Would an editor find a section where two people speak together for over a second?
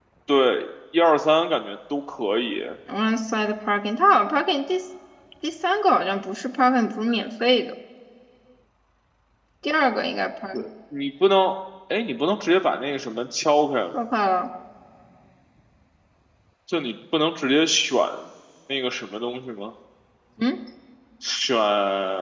No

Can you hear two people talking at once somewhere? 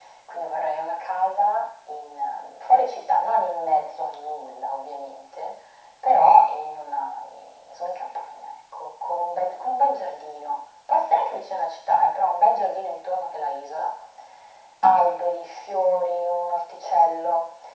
No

